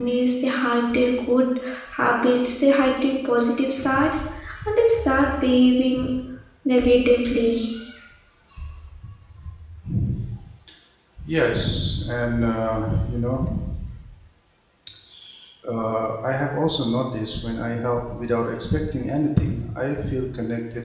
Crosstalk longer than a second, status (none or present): none